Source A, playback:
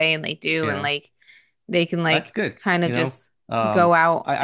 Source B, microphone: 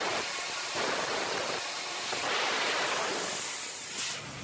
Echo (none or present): none